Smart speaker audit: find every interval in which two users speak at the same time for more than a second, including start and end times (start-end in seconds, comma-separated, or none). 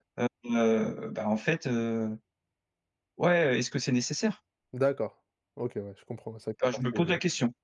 none